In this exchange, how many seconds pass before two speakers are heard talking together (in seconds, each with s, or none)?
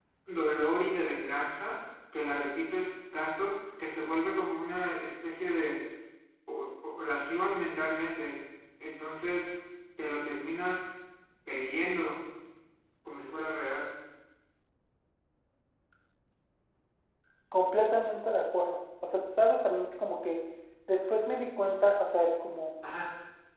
none